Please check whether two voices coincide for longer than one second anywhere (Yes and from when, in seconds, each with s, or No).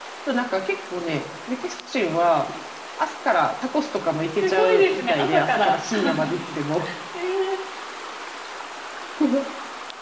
Yes, from 4.4 s